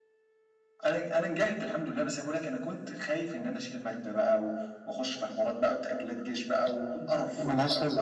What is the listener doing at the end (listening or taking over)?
taking over